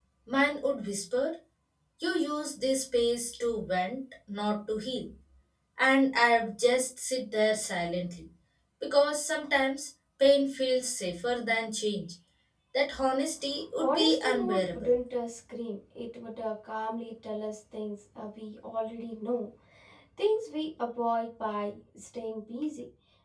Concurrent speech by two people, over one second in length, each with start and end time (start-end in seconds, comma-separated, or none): 13.8-15.0